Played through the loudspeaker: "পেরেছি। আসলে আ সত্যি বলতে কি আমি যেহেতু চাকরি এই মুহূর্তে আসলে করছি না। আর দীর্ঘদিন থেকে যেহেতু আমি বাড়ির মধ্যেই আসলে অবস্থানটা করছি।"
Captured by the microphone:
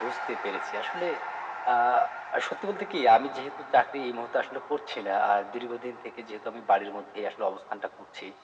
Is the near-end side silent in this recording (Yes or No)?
Yes